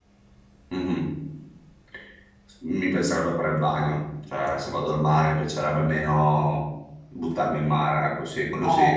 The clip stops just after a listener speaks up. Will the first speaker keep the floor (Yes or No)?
No